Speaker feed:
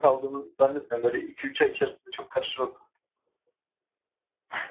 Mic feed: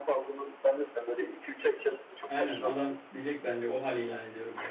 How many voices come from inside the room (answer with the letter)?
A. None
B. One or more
B